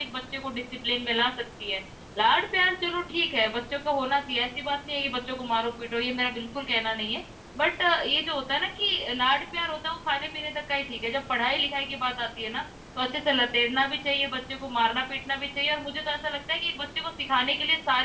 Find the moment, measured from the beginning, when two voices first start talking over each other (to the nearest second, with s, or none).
none